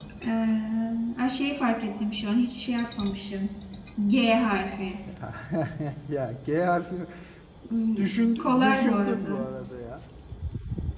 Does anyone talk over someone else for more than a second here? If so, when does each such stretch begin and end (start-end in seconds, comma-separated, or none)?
8.0-9.5